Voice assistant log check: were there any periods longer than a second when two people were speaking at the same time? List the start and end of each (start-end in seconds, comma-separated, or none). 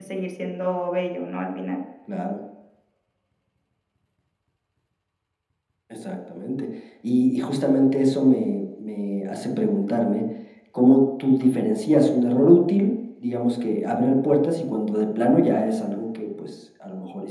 none